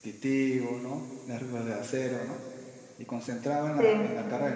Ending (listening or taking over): listening